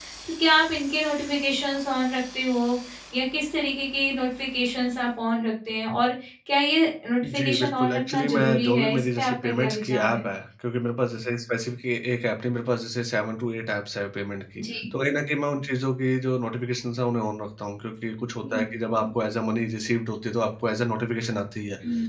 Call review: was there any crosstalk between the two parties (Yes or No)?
Yes